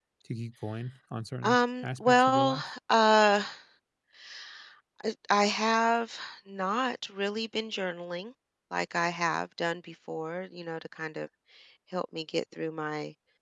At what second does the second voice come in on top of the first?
1.4 s

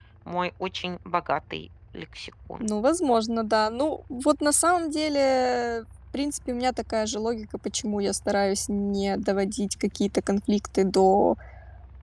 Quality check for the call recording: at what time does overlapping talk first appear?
none

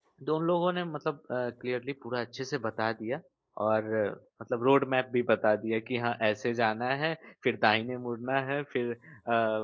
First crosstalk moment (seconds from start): none

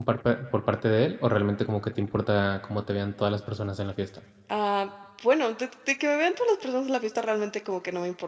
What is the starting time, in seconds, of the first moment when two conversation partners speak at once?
none

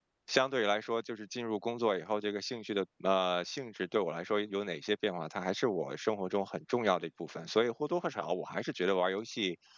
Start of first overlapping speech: none

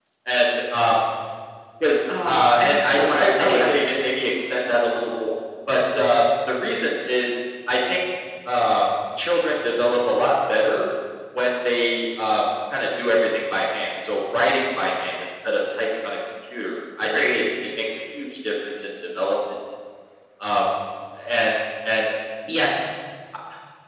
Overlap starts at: 2.2 s

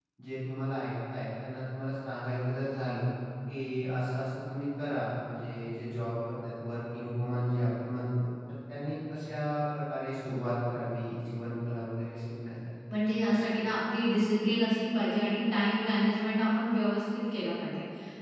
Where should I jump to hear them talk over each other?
none

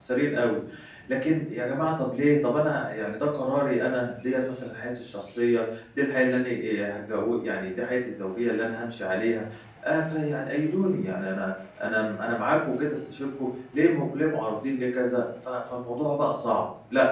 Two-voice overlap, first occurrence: none

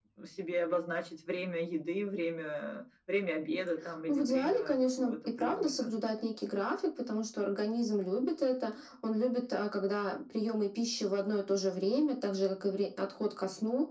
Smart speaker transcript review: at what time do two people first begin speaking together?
4.1 s

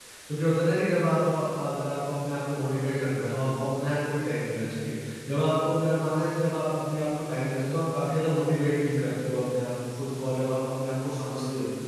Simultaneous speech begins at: none

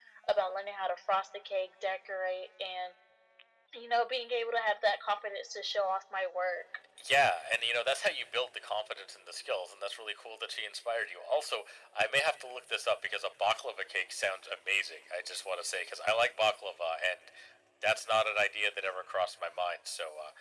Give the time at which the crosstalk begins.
none

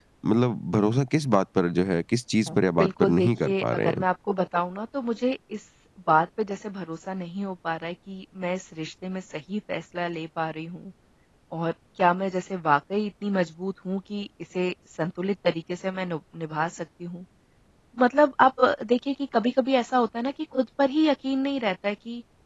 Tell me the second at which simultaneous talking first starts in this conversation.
2.8 s

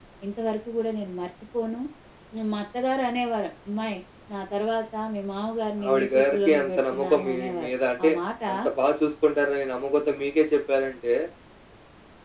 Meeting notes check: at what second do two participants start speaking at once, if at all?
5.8 s

